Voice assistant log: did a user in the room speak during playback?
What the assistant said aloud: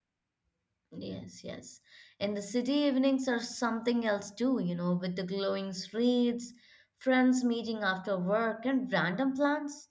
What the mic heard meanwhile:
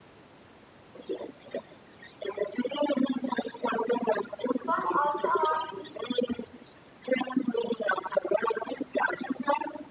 Yes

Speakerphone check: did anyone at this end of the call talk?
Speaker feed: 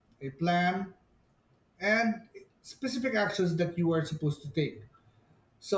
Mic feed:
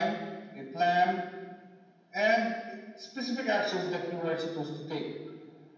No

